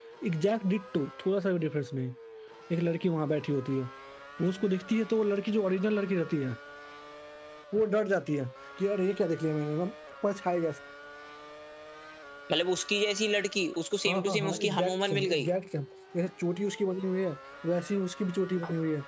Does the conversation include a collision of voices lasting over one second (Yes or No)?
Yes